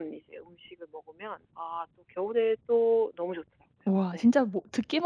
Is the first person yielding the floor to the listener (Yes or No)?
Yes